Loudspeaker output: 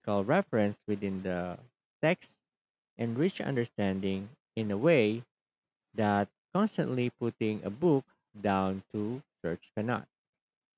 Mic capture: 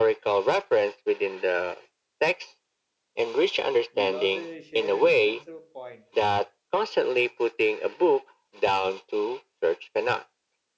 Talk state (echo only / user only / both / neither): both